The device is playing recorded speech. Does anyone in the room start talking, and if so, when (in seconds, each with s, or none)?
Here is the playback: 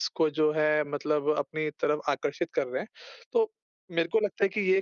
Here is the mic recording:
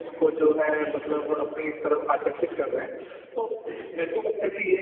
none